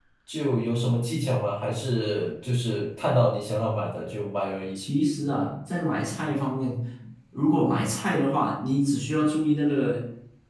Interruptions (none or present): none